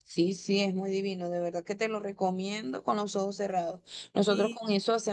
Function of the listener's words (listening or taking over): listening